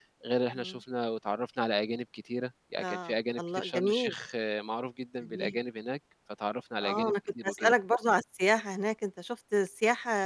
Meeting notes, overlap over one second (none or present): present